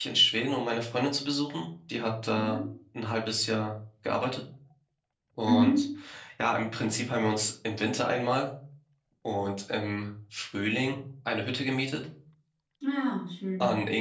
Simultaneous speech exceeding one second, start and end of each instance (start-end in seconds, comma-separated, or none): none